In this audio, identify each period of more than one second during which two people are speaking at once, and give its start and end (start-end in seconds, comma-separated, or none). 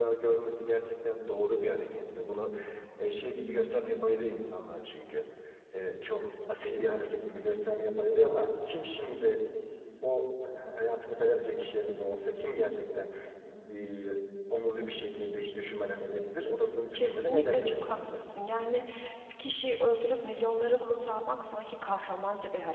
16.9-18.2